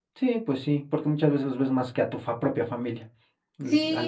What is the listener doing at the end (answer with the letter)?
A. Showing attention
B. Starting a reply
B